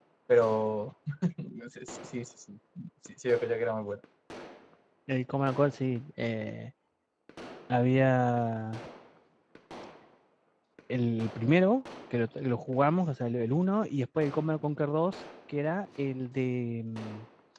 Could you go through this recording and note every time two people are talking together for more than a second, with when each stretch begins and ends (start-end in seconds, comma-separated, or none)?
none